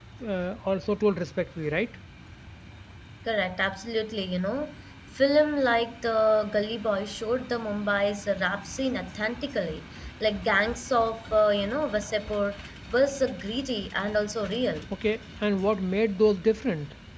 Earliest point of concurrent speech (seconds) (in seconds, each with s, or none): none